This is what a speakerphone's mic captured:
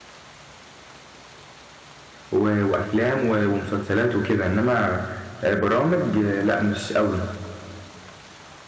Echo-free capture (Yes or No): Yes